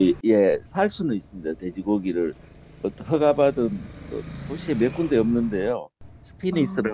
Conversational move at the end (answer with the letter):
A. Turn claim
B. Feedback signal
B